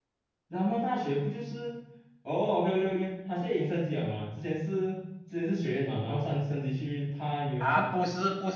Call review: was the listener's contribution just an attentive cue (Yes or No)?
No